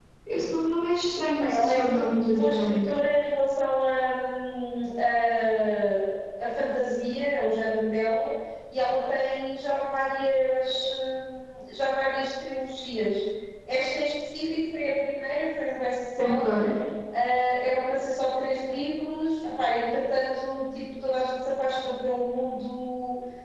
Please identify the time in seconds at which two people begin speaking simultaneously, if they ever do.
1.4 s

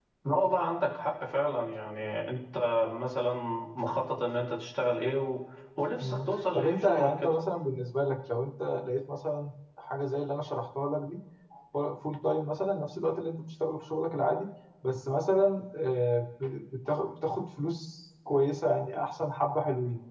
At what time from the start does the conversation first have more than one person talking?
6.0 s

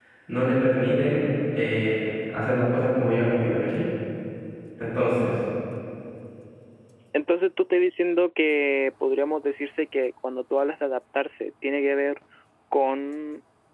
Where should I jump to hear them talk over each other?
none

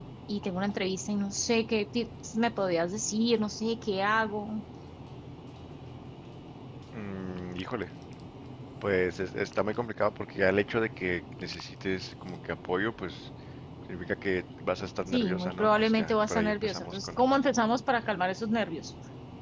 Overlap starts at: 15.1 s

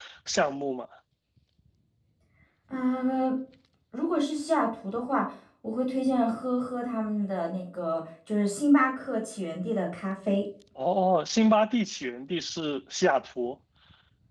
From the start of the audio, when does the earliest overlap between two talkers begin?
none

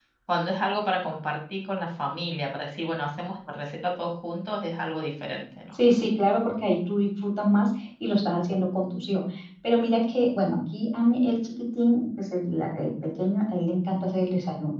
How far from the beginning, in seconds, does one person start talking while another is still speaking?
none

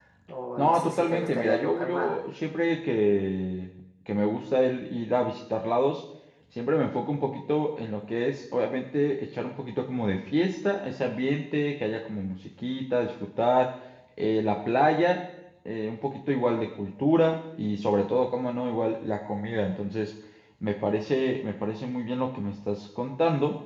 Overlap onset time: 0.6 s

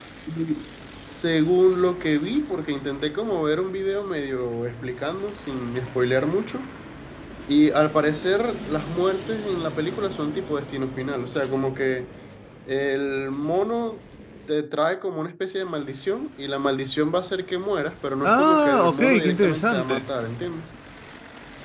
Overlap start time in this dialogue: 18.2 s

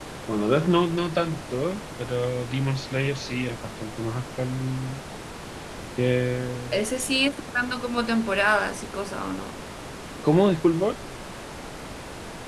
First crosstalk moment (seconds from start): none

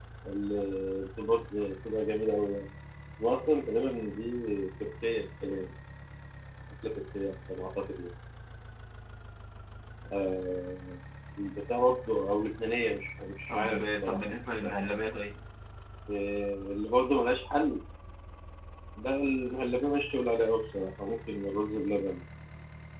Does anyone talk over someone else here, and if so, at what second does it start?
13.5 s

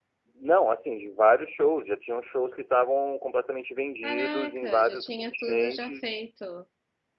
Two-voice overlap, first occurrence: 4.0 s

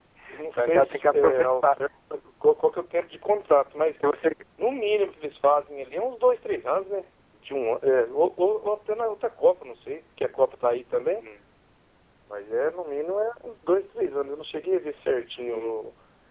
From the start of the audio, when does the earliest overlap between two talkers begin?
0.6 s

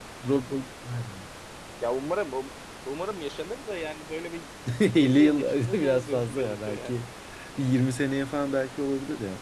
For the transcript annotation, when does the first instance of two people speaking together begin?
5.0 s

